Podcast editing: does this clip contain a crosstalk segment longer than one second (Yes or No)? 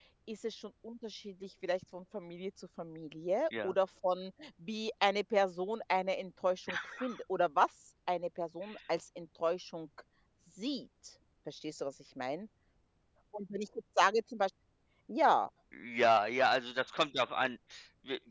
No